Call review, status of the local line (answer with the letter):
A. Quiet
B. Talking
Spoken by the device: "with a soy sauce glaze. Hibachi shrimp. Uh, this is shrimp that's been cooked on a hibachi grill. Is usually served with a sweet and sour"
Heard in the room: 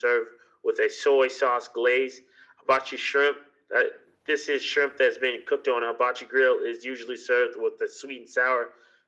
A